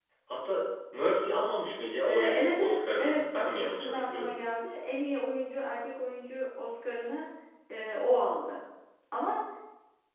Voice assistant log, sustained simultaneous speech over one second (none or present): present